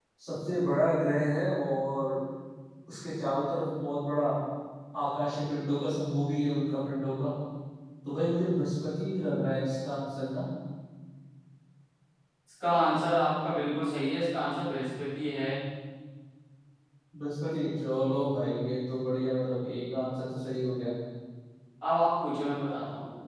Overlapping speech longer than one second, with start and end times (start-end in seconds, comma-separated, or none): none